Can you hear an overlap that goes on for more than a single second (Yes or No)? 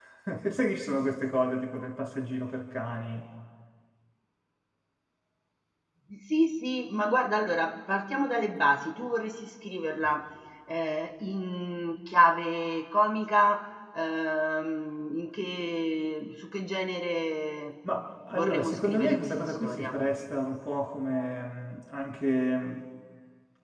Yes